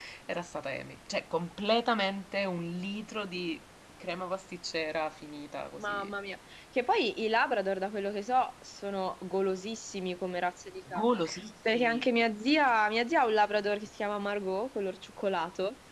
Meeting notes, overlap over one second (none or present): none